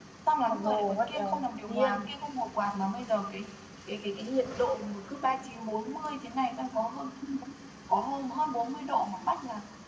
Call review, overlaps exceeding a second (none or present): present